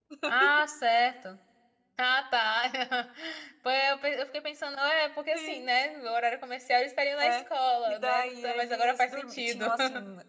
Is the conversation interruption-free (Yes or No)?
No